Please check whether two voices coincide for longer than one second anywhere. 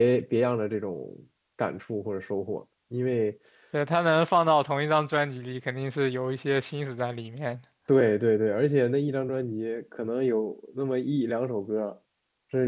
No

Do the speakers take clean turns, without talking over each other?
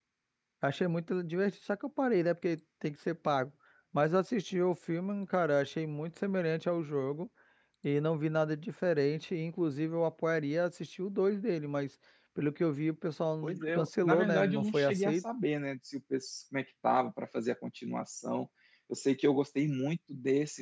No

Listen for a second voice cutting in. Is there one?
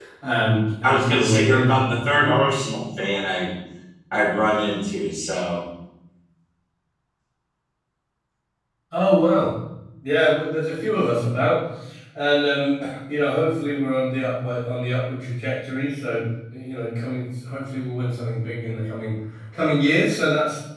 Yes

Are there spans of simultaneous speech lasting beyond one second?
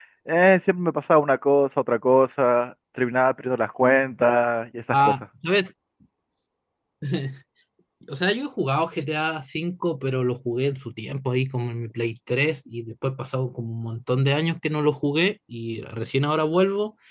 No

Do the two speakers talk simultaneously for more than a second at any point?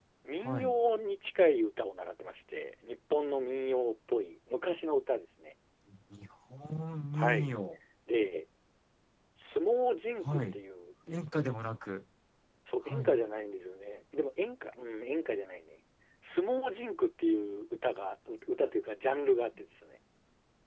No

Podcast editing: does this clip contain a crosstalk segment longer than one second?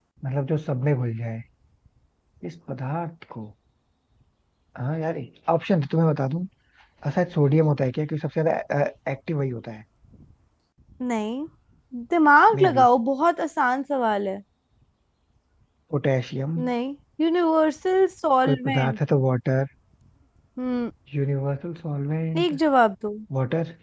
No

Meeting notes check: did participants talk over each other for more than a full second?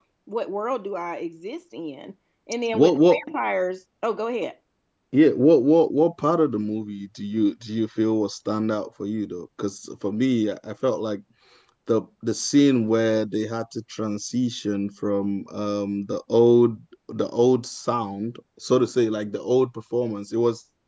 No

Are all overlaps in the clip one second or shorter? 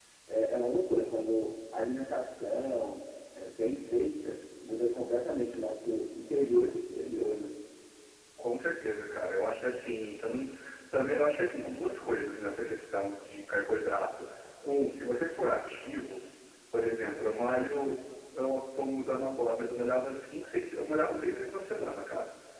Yes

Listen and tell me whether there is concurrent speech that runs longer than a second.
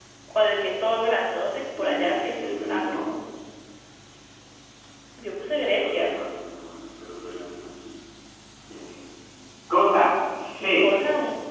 Yes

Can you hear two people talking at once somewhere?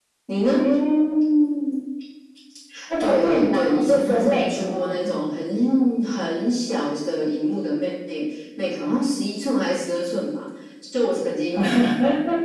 Yes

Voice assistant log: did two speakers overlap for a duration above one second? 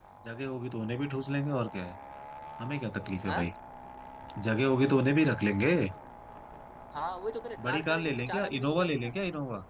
Yes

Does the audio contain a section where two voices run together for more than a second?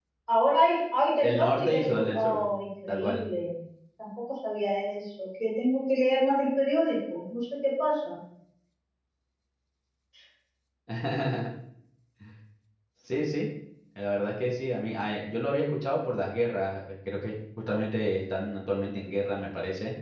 Yes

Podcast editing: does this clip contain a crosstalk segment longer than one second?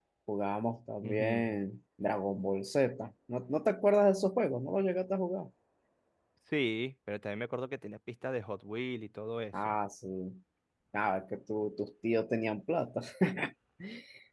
No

